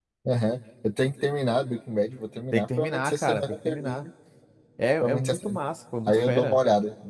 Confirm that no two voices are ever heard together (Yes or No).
No